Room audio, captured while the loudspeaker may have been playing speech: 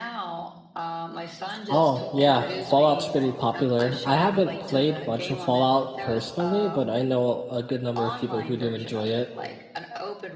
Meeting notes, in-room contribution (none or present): present